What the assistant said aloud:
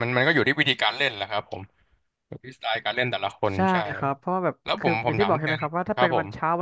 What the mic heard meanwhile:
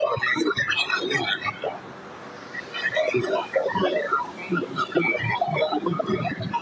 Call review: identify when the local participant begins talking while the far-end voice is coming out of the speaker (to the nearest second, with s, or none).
none